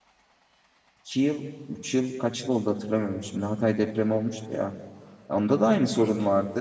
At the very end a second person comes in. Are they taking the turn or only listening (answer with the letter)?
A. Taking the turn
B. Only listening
B